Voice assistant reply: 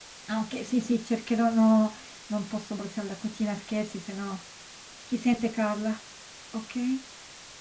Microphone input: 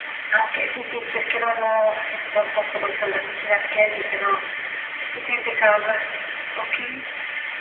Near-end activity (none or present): none